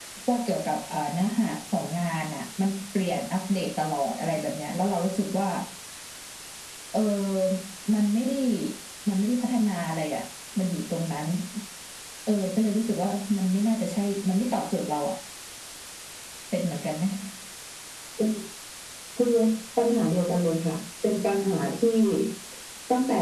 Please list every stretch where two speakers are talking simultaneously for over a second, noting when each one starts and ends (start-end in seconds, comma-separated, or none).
none